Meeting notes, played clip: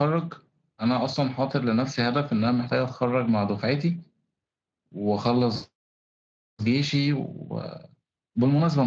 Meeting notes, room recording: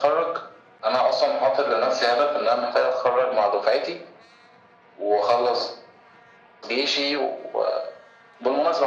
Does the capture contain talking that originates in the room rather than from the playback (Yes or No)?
No